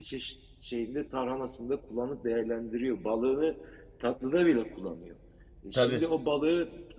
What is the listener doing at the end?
listening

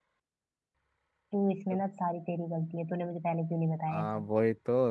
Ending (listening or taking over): taking over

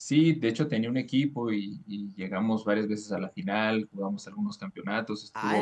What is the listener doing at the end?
taking over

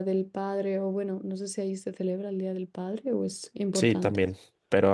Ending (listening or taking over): taking over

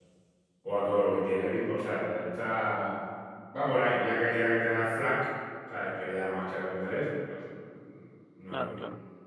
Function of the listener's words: taking over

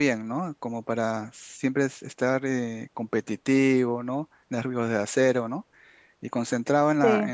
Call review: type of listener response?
listening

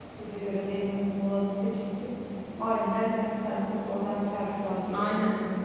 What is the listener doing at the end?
taking over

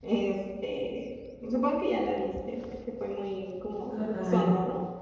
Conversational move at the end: listening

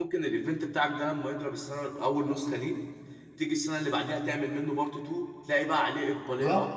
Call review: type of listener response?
taking over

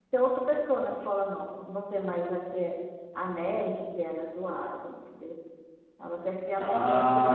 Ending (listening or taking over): taking over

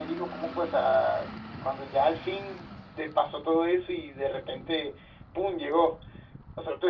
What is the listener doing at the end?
listening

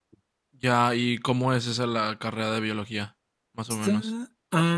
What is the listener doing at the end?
taking over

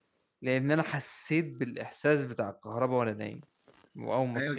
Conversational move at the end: taking over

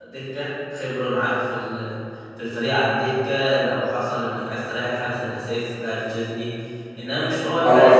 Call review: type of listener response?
taking over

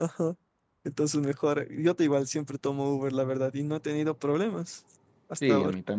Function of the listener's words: taking over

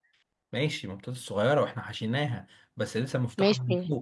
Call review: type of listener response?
taking over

